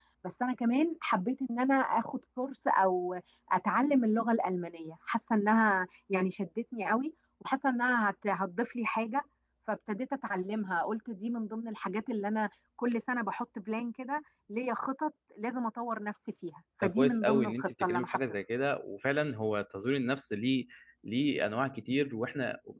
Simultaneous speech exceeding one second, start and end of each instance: 16.8-18.2

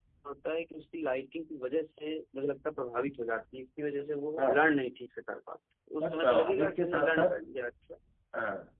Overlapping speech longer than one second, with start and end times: 6.0-7.3

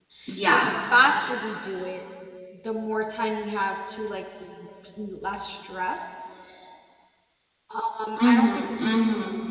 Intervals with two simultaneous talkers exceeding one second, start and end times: none

